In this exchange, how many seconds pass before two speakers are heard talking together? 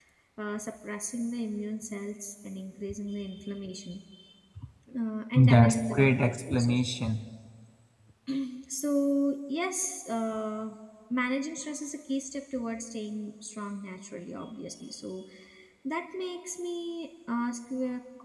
5 s

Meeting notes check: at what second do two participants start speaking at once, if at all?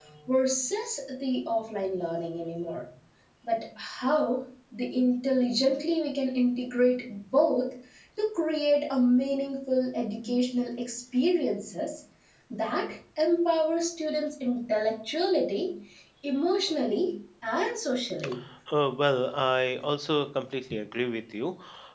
none

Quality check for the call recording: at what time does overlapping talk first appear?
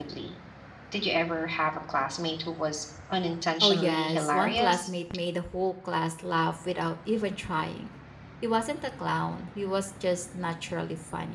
4 s

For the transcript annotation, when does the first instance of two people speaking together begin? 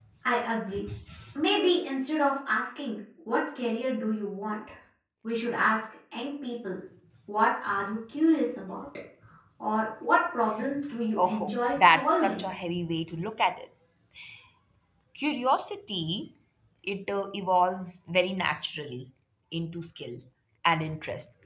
11 s

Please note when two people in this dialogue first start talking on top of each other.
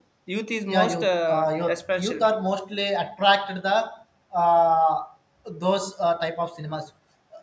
1 s

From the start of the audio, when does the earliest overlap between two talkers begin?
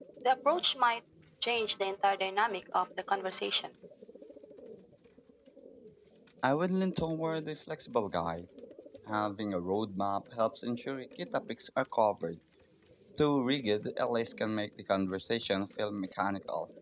none

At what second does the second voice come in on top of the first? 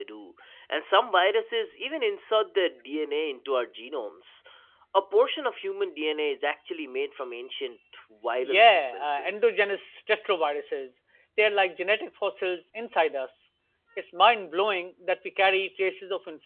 8 s

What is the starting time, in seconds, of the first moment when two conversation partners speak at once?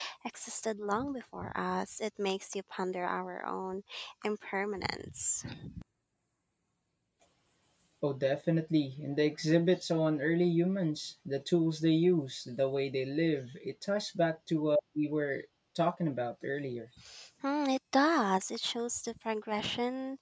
none

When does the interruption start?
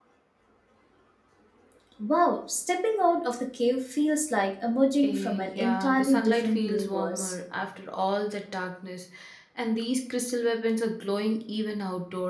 5 s

